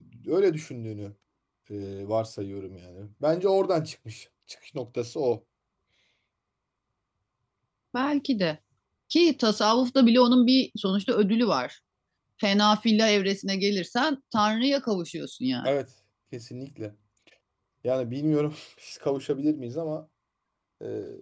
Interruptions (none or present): none